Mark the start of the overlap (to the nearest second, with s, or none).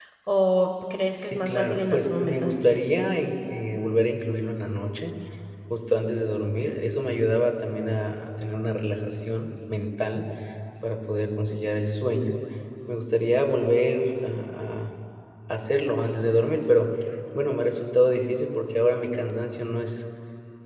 1 s